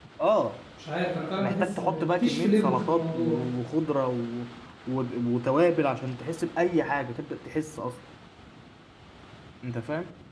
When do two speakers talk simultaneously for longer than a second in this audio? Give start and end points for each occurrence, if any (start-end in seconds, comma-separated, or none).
1.4-3.4